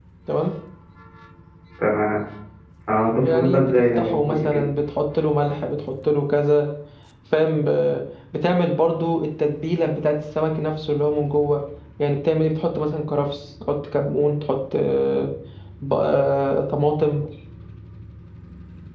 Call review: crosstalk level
present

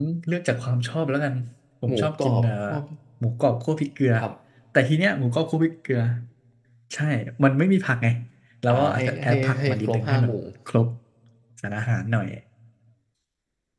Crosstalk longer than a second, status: present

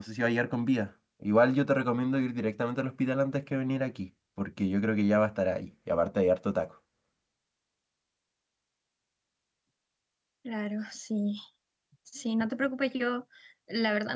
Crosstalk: none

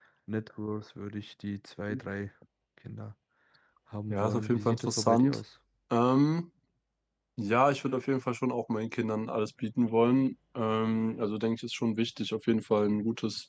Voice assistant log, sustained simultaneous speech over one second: present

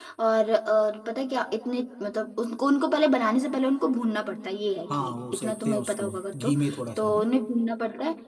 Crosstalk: present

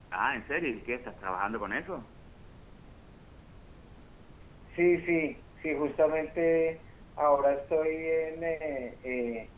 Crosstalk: none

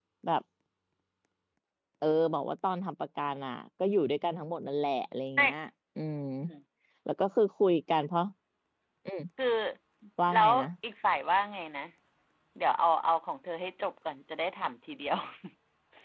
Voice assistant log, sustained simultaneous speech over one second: none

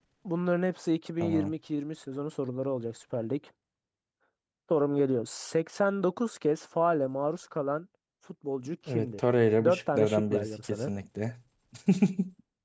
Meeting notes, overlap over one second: present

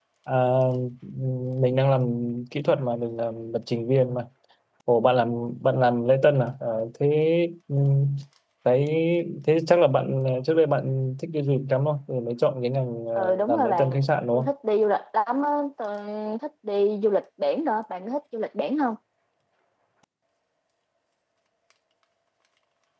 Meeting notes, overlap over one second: present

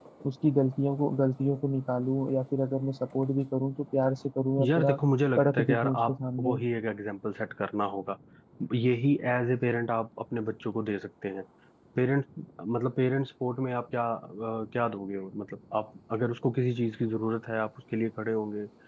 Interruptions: present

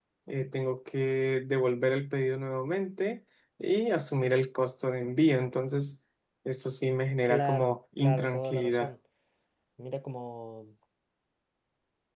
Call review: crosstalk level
present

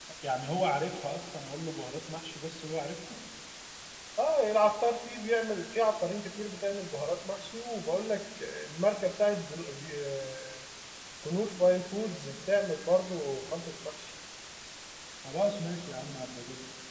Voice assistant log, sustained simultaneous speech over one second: none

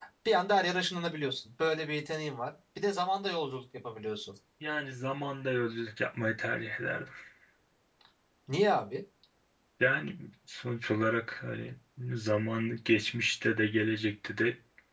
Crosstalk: none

